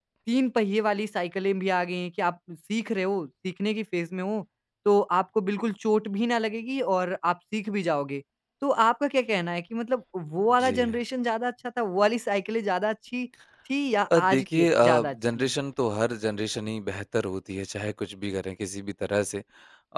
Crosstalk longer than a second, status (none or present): present